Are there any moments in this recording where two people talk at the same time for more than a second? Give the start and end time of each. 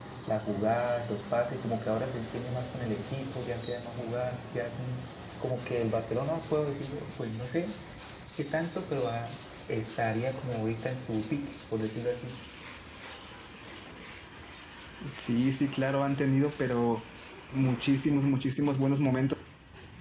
none

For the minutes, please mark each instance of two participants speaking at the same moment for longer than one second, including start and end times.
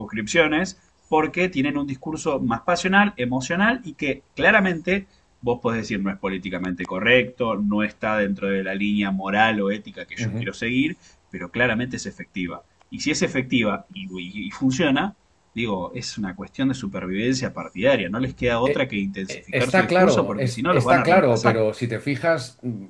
19.3-21.6

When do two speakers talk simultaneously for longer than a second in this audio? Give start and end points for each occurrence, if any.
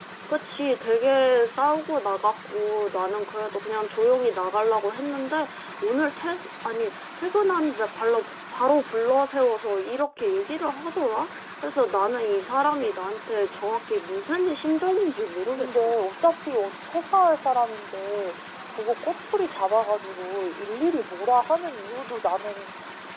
none

